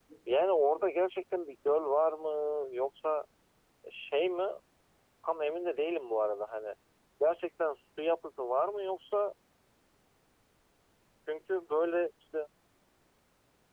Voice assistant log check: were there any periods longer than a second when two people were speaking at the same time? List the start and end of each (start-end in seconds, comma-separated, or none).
none